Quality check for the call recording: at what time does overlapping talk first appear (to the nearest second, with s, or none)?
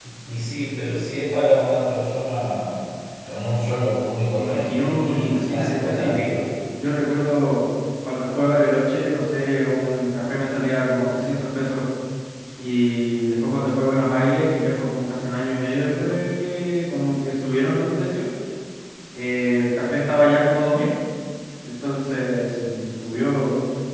4 s